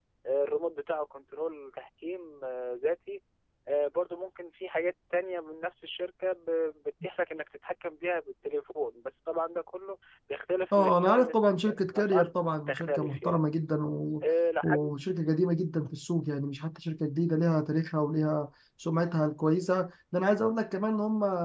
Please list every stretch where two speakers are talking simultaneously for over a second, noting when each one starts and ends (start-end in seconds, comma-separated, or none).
10.7-13.4